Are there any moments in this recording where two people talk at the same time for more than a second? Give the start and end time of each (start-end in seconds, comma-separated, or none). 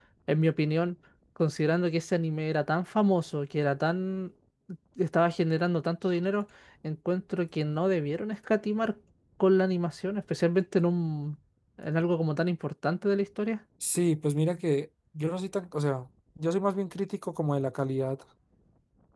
none